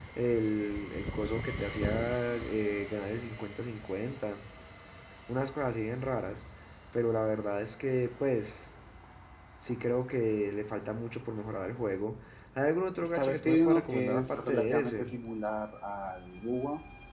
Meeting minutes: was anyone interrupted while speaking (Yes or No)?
Yes